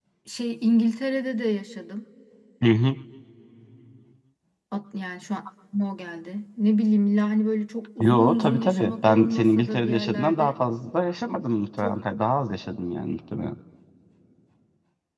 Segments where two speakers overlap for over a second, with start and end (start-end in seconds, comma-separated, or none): 8.0-10.5